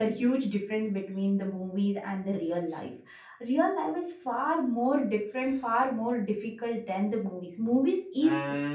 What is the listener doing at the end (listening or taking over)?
taking over